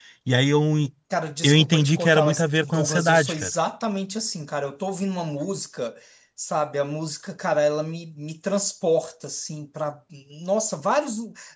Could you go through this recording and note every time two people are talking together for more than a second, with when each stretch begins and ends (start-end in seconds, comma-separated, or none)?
1.4-3.5